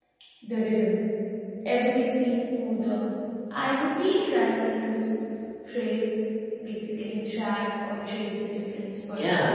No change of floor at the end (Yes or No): No